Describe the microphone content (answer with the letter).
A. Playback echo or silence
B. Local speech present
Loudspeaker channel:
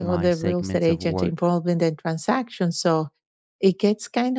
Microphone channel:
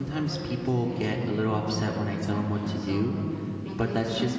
B